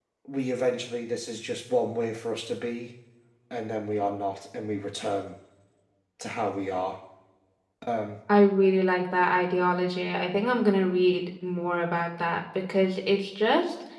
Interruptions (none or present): none